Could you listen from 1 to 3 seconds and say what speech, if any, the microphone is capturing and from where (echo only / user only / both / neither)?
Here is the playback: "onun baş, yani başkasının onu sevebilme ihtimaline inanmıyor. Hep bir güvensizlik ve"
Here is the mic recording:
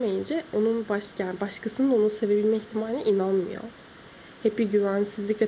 echo only